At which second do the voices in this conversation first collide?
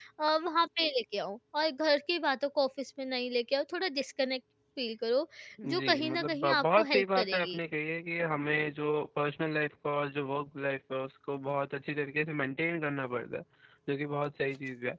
5.6 s

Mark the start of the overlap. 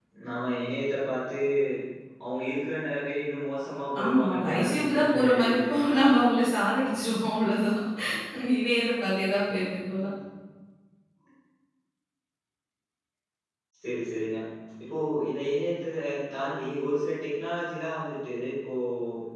4.0 s

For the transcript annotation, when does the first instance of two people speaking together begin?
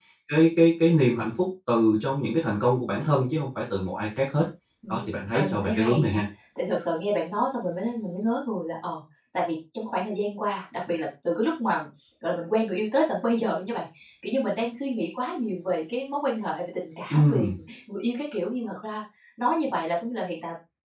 4.9 s

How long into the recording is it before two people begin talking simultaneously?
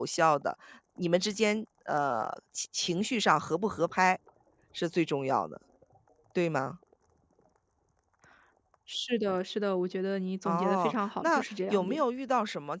10.4 s

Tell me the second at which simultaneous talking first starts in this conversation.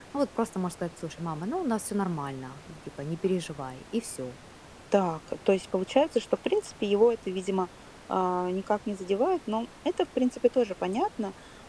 none

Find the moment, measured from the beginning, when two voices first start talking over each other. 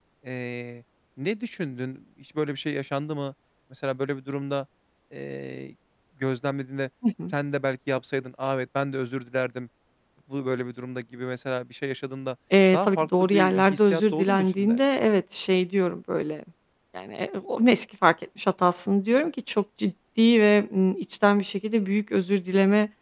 12.7 s

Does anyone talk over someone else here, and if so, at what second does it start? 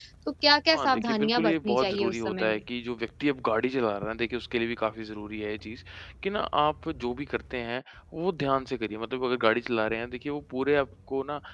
0.7 s

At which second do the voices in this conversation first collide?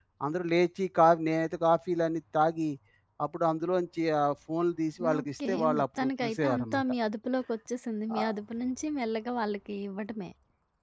5.0 s

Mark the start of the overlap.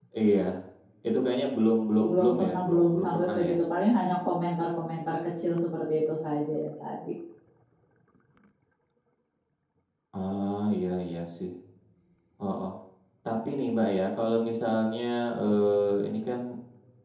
2.0 s

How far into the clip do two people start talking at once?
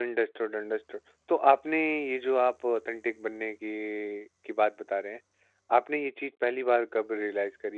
none

